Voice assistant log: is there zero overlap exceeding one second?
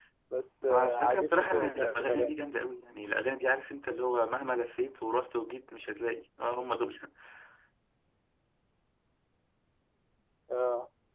No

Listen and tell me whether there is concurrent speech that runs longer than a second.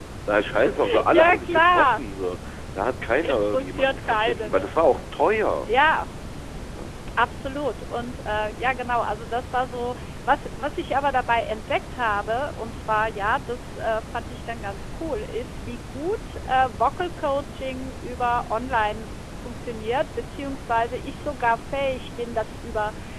Yes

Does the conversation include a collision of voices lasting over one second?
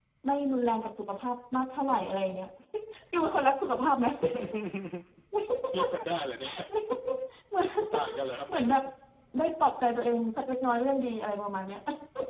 No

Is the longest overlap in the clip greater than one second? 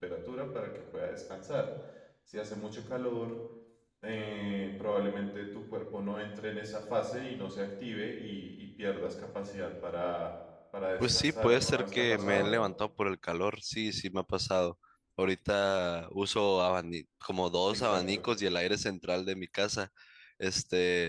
Yes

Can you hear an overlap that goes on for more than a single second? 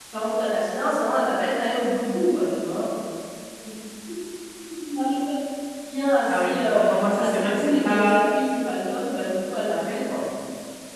Yes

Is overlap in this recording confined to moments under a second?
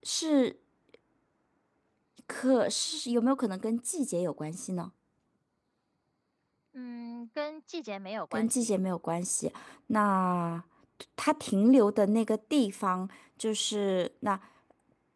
Yes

